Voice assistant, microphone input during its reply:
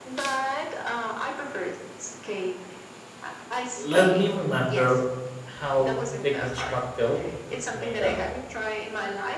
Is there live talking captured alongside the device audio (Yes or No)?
Yes